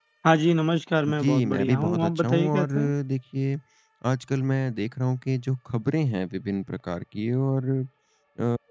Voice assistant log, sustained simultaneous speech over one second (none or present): present